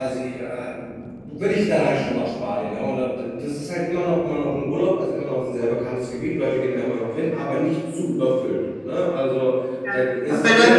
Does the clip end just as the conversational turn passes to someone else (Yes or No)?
Yes